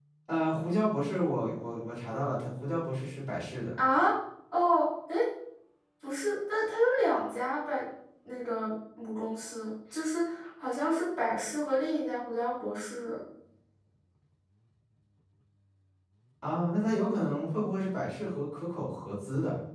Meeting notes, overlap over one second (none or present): none